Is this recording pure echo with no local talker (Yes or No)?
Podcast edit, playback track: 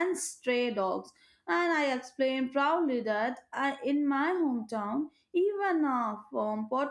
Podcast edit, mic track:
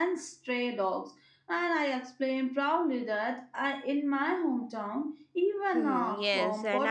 No